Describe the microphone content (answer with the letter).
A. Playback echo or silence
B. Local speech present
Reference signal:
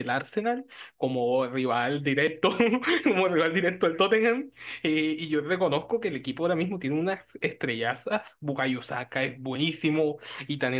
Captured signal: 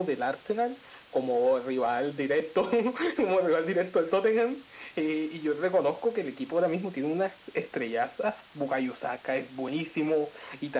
A